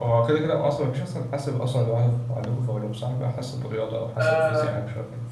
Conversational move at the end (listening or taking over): taking over